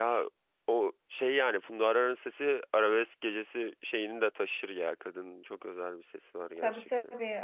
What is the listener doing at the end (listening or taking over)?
taking over